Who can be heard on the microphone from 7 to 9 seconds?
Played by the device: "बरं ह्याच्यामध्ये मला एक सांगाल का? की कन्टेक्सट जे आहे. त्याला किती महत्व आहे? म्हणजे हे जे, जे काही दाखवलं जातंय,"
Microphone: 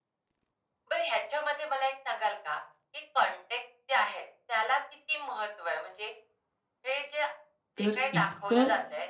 both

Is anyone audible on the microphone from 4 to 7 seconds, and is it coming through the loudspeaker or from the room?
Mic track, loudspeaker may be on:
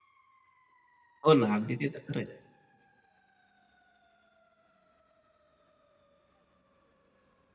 neither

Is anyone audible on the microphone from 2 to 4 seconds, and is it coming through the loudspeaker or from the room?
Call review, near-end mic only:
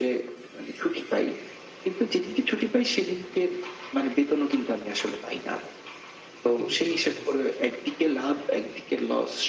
echo only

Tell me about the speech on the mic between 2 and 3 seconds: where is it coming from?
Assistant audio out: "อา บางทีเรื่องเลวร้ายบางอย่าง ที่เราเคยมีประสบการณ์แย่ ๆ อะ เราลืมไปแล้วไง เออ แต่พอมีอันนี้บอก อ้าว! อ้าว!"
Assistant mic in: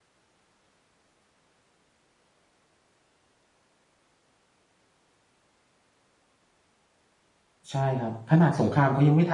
neither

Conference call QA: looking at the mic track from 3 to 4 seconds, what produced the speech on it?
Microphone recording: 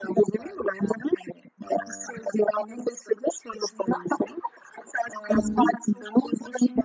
echo only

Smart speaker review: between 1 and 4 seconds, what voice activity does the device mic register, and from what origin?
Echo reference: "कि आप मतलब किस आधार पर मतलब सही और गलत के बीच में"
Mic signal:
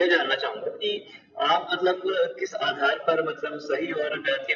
echo only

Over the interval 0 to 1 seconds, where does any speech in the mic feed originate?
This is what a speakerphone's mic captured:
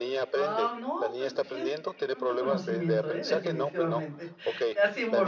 both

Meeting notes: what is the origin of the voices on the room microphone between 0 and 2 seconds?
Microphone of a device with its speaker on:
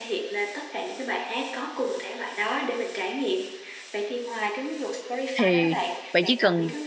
echo only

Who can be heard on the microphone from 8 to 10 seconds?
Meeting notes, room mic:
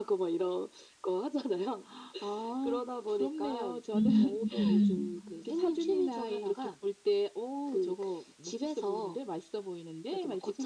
echo only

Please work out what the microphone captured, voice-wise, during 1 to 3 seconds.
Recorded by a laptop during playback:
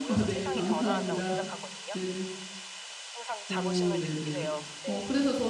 both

